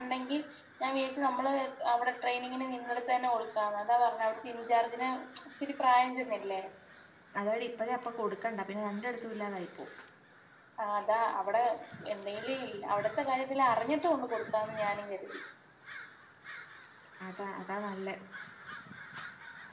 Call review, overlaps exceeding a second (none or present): none